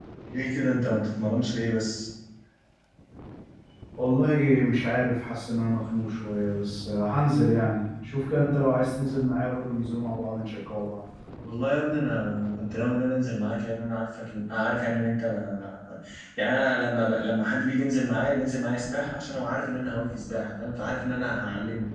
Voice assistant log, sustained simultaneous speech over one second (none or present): none